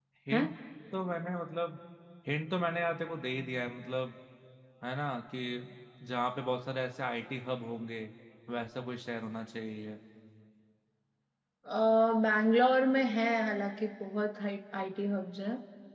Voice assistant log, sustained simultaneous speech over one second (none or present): none